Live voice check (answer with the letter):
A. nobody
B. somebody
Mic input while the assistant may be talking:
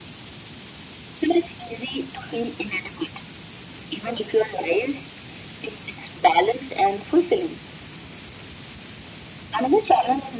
A